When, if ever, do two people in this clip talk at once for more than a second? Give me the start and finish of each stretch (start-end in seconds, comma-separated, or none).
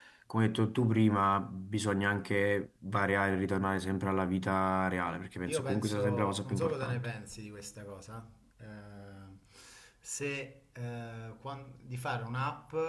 5.5-7.1